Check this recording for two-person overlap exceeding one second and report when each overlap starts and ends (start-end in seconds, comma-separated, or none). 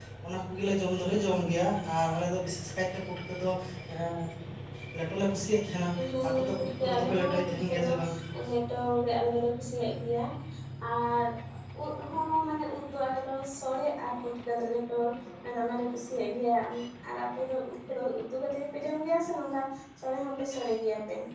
6.2-7.9